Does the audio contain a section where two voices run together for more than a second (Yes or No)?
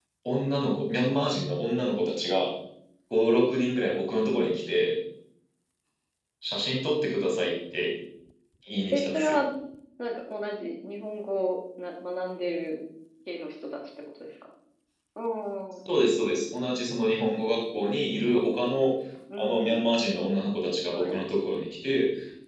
No